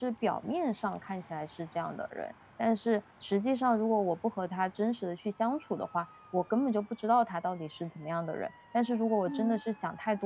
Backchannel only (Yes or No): Yes